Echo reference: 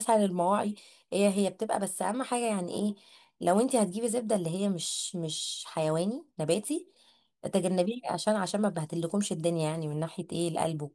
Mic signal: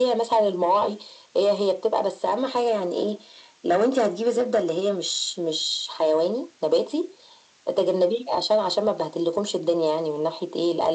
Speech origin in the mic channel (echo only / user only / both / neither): echo only